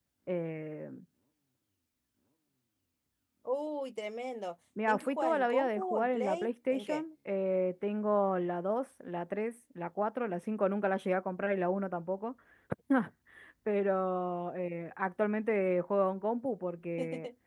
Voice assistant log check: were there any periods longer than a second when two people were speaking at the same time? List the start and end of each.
4.9-7.0

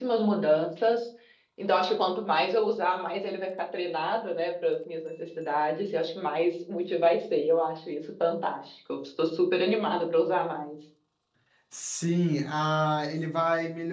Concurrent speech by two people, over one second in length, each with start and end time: none

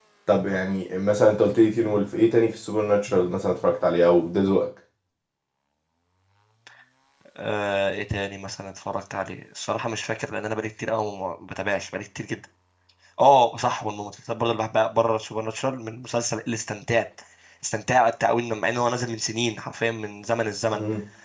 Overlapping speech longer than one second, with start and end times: none

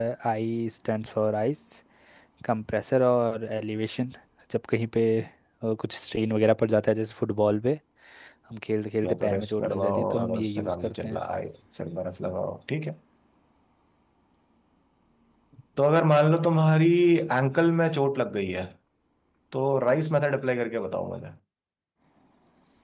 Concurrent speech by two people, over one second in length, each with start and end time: 9.0-11.2

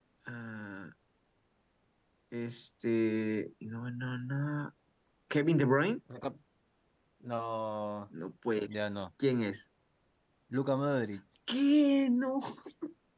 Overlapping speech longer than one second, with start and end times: none

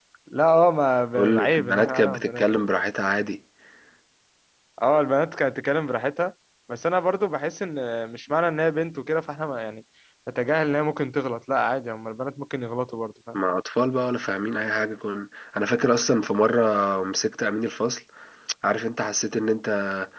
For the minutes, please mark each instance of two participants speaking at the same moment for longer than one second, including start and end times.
1.2-2.5

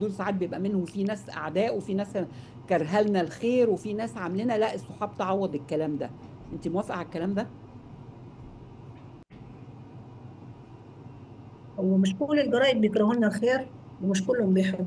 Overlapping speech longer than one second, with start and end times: none

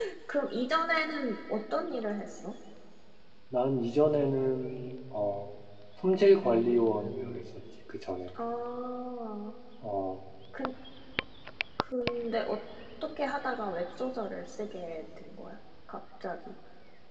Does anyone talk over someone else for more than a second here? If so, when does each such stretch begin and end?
none

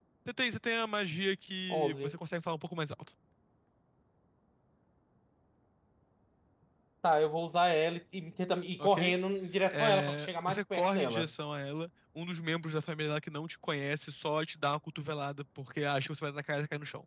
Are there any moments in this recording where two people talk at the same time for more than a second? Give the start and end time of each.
9.7-11.3

